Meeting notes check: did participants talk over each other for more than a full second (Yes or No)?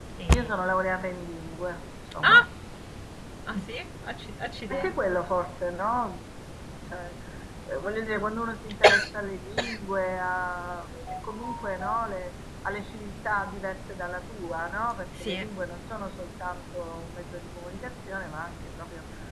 No